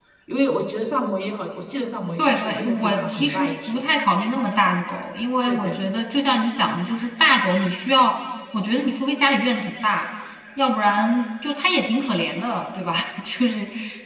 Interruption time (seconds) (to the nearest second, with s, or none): 2 s